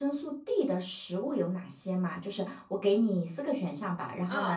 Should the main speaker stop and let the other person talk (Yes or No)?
No